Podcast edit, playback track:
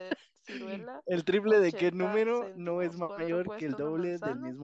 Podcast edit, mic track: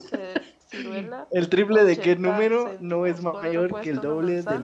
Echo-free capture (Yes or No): No